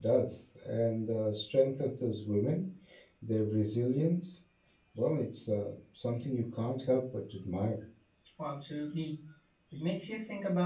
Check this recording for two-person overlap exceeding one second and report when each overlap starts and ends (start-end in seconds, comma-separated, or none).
none